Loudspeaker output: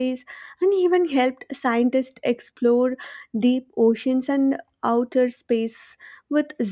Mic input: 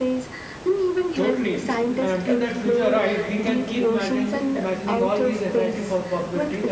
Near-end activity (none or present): present